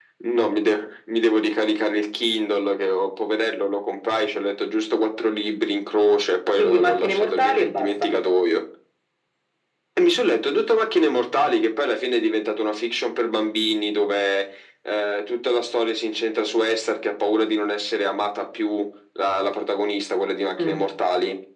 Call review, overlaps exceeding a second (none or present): present